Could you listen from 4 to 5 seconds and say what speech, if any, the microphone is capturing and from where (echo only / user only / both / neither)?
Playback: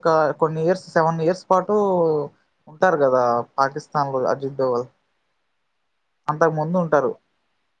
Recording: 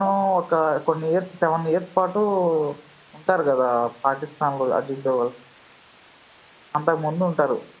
echo only